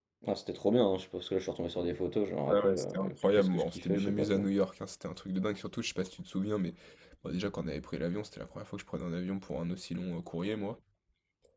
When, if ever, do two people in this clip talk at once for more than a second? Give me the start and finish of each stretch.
2.5-4.5

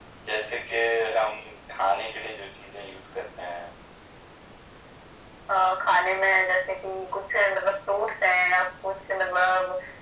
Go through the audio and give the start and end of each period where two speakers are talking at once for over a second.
none

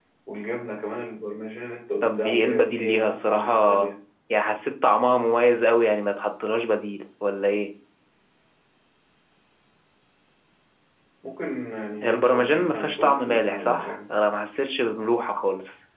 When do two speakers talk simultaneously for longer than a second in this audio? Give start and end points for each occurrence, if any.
2.0-3.8, 12.0-14.1

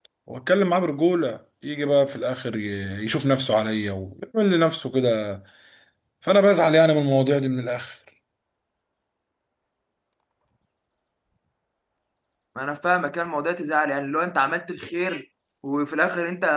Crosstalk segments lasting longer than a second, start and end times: none

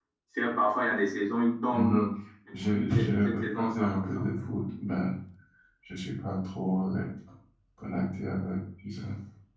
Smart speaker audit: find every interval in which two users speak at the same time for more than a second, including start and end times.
2.6-4.3

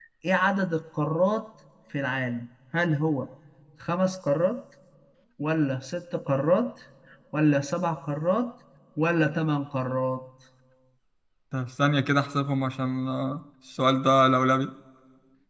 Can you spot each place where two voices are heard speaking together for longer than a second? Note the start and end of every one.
none

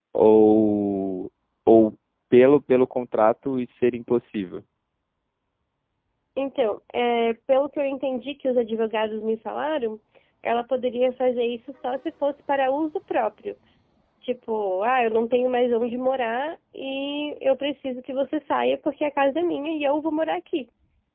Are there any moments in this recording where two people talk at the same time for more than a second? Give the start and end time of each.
none

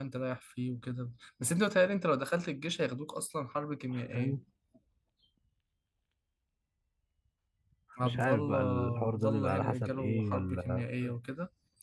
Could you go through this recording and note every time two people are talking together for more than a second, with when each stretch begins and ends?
8.0-10.8

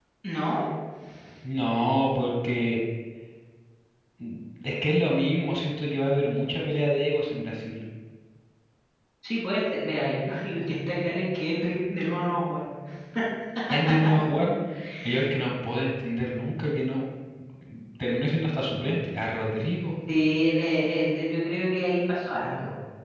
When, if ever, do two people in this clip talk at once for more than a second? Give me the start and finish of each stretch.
none

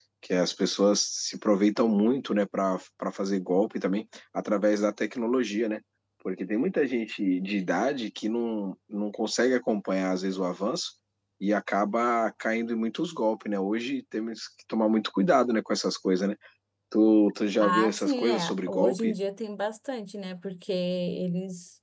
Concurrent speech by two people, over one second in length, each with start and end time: 17.6-19.1

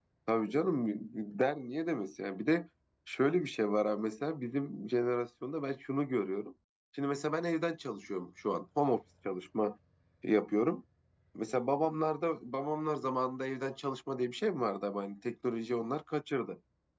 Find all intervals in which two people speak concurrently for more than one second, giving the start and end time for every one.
none

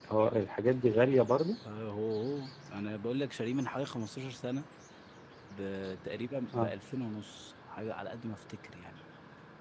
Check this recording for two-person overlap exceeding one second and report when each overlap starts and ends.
none

